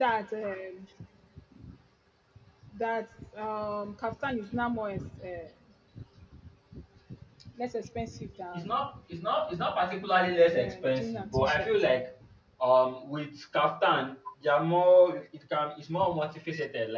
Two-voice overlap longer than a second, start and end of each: 10.5-11.9

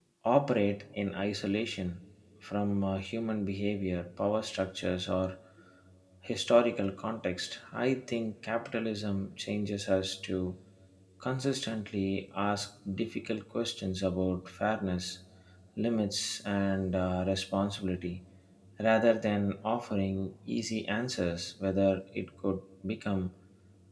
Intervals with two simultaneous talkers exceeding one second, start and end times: none

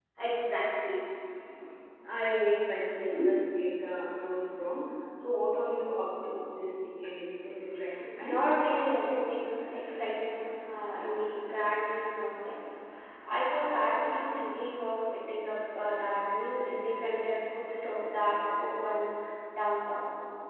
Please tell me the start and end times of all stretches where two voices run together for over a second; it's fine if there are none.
none

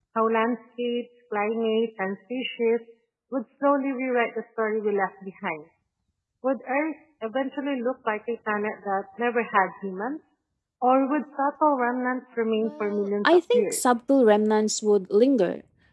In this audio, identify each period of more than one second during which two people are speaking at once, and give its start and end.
12.6-14.0

